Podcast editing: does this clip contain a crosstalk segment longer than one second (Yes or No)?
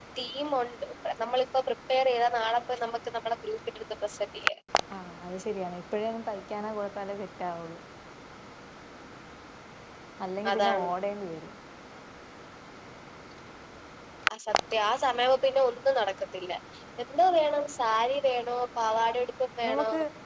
No